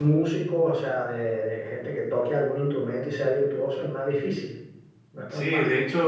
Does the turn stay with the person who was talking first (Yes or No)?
No